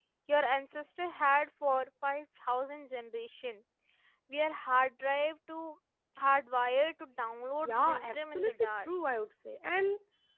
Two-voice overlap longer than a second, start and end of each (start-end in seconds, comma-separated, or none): 7.6-8.9